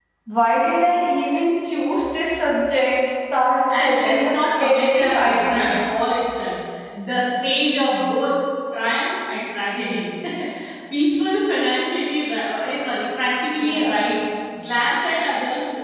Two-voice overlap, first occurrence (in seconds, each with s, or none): 3.8 s